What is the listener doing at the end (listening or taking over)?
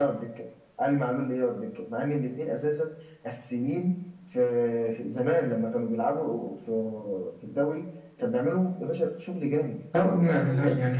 taking over